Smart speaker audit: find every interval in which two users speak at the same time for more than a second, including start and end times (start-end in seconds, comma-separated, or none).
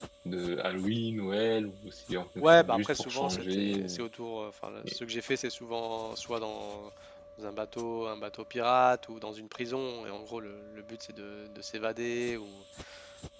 2.4-4.0